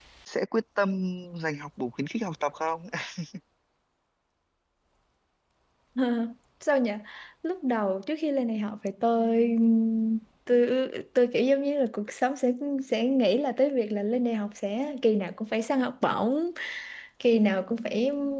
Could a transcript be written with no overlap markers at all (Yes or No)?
Yes